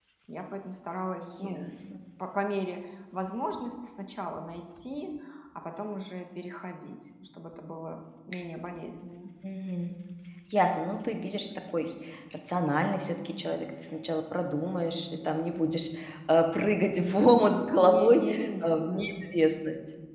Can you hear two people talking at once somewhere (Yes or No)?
Yes